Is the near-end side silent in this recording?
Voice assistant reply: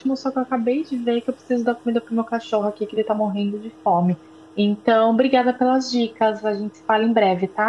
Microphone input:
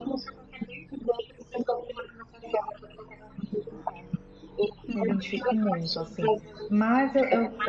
No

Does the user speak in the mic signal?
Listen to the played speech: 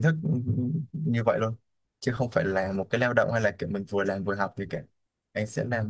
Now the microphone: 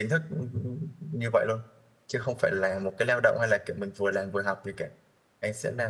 No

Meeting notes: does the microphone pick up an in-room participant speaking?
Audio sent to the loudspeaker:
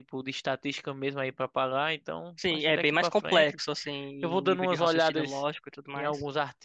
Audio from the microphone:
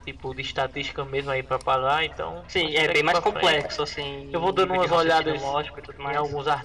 No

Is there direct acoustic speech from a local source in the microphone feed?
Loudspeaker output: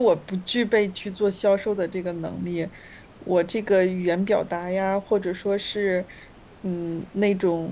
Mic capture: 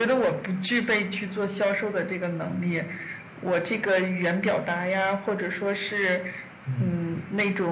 Yes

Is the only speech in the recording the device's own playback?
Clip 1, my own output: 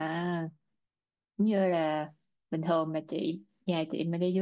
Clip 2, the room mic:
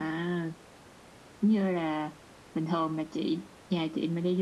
Yes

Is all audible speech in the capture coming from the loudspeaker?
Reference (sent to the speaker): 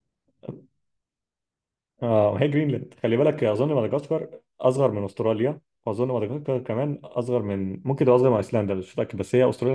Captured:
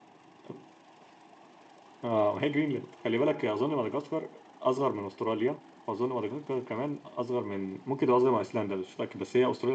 Yes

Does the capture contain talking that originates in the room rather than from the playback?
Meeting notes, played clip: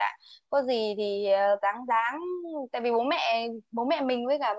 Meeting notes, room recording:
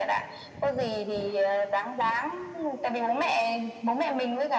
No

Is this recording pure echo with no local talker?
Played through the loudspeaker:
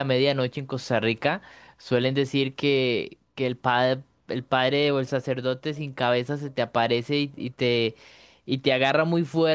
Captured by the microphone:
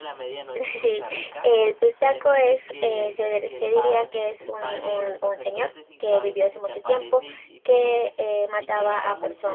No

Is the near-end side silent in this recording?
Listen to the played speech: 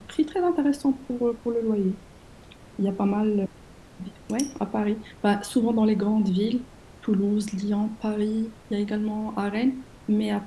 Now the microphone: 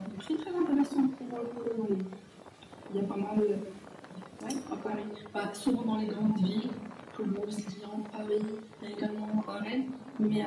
Yes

